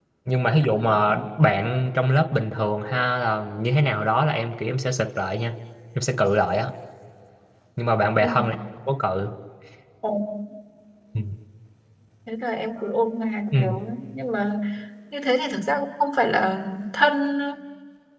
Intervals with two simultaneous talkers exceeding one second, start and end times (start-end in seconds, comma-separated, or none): none